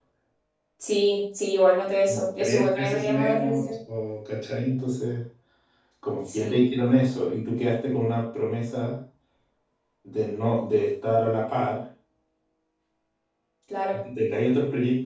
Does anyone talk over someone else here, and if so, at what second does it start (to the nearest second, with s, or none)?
2 s